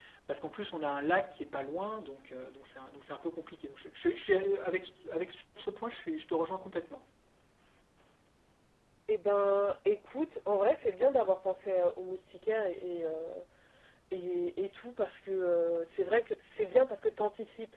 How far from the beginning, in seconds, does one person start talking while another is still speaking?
none

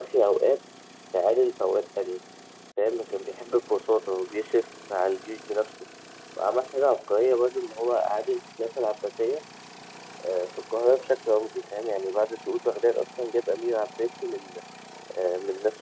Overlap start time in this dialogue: none

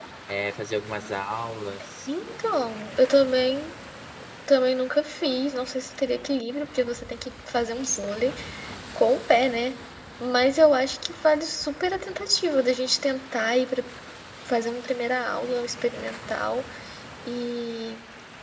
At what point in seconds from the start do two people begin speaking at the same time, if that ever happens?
none

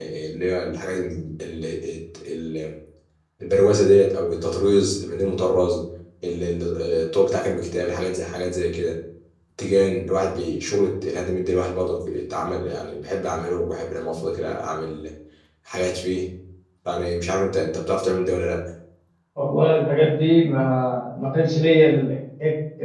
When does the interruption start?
none

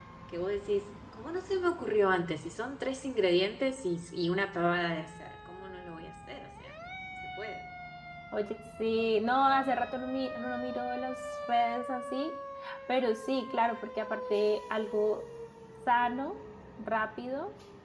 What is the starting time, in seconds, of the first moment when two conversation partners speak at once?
none

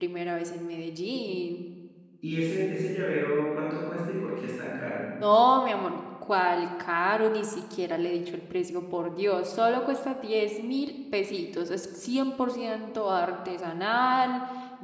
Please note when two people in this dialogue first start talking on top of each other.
none

